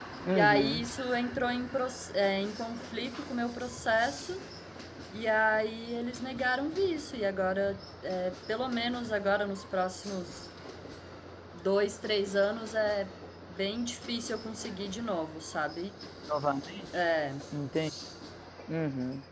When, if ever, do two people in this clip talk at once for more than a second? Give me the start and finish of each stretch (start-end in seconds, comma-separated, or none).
none